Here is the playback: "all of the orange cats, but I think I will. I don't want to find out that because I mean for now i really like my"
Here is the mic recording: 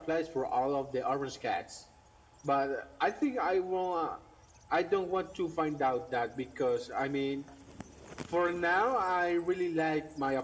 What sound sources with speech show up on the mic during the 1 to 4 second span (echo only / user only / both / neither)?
echo only